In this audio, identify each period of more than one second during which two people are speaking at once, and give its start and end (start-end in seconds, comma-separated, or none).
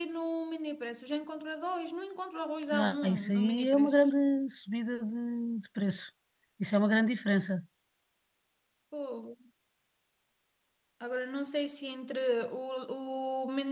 2.7-4.1